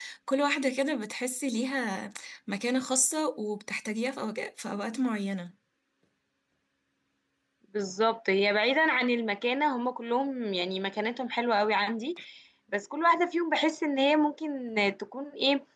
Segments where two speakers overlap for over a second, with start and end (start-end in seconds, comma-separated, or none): none